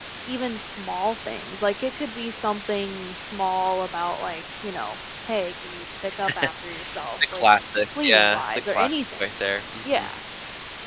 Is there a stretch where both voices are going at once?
Yes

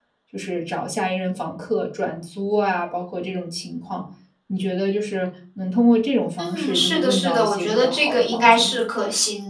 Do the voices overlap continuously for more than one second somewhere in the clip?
Yes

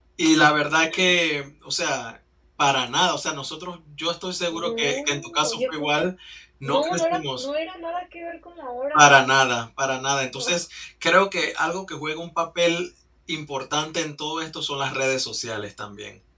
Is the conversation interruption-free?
No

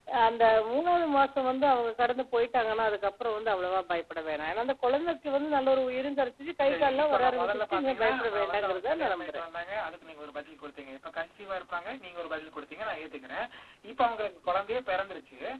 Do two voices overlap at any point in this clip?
Yes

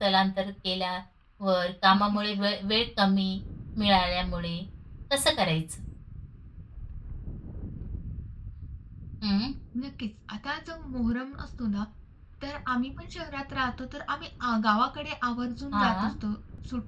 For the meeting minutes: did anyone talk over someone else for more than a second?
No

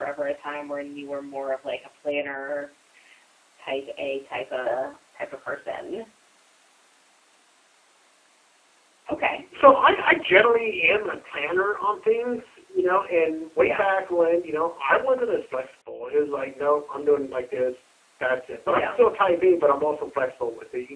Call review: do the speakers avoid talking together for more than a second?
Yes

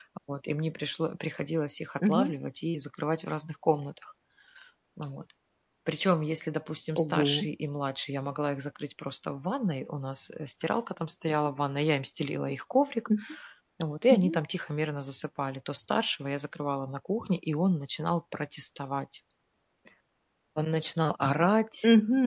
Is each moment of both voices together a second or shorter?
Yes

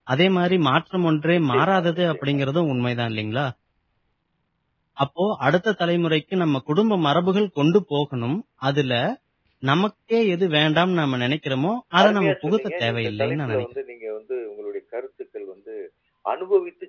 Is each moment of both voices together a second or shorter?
No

